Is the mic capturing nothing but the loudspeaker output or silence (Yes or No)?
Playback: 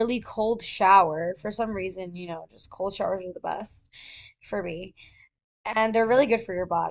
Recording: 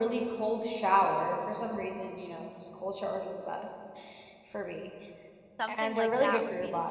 No